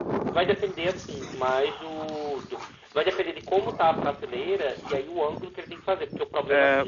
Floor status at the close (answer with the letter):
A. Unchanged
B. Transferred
A